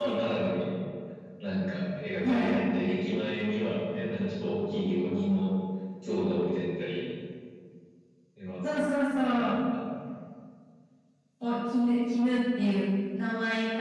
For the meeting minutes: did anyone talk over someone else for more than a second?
No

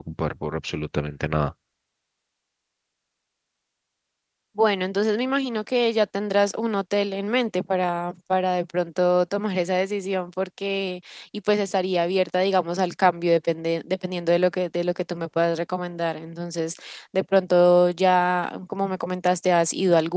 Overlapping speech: No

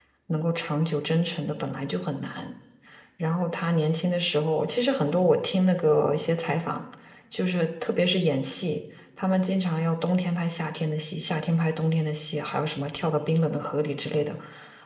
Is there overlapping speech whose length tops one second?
No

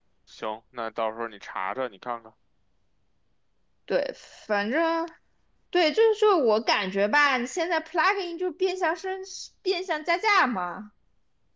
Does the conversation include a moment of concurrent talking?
No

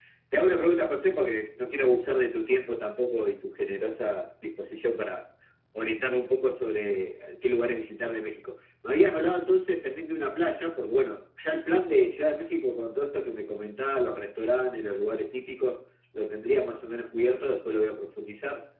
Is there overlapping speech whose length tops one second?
No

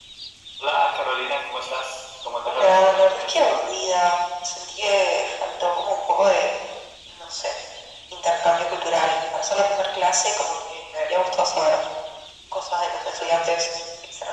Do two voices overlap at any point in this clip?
Yes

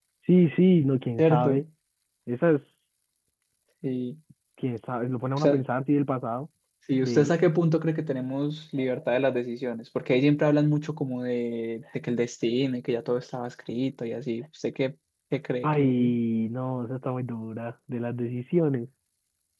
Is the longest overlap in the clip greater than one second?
No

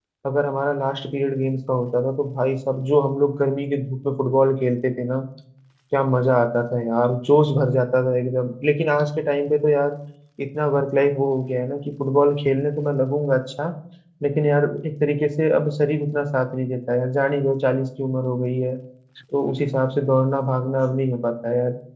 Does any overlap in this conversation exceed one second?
No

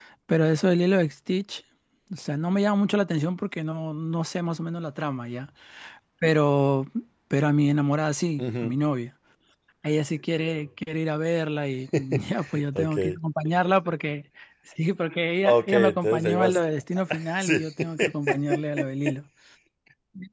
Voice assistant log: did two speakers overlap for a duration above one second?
Yes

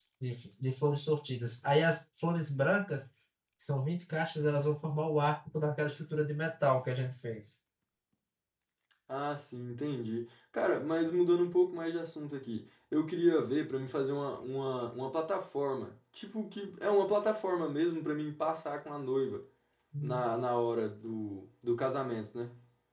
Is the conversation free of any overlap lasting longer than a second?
Yes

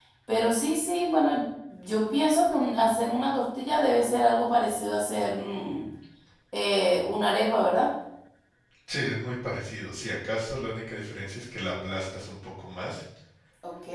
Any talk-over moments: No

